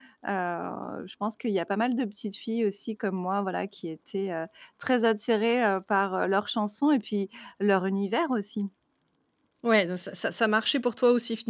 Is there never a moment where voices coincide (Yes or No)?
Yes